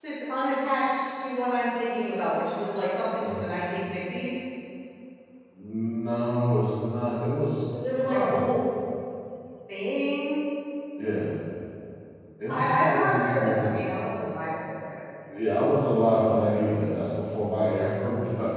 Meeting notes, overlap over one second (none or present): present